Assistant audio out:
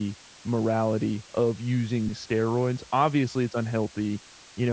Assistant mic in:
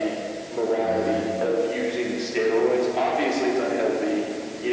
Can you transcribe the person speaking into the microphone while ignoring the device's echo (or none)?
I